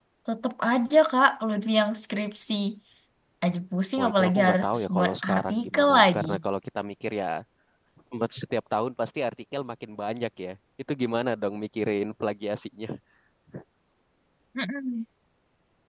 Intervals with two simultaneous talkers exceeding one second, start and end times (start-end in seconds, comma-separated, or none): 4.0-6.3